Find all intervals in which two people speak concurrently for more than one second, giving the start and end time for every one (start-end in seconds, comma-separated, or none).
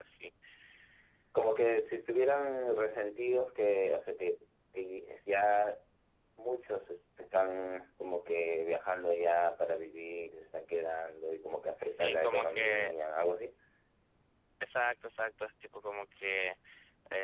11.5-12.9